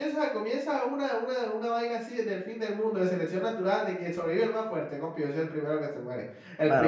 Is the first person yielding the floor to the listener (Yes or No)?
Yes